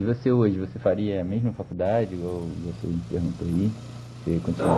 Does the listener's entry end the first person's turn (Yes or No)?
Yes